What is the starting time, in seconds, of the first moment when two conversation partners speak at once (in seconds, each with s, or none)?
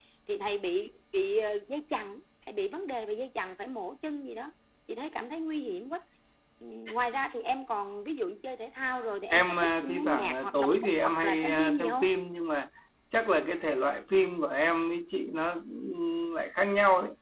9.3 s